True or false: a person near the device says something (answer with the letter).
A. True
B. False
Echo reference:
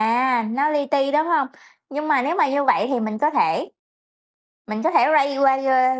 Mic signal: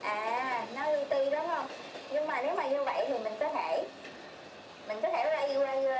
B